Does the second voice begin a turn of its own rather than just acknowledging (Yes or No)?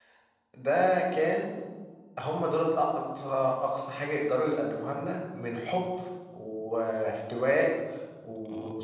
Yes